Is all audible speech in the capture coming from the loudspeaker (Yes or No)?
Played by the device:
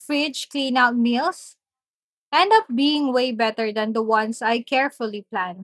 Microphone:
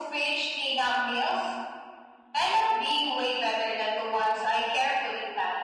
Yes